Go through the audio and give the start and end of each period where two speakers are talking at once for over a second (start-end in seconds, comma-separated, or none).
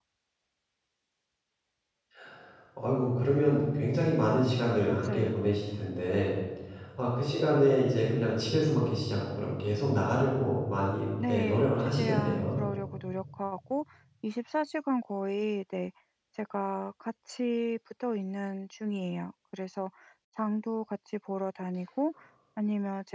11.3-12.6